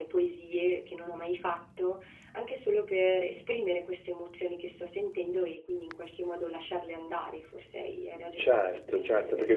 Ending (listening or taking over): taking over